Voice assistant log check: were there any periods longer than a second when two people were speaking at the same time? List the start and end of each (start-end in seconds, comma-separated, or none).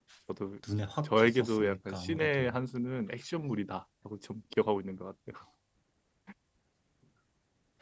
1.0-2.6